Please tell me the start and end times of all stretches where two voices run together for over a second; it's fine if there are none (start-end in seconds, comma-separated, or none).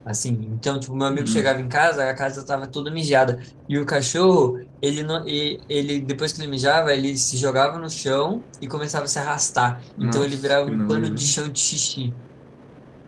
10.0-11.2